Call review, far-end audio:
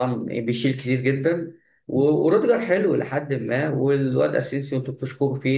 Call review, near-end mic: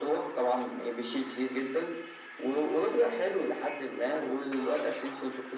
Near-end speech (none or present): none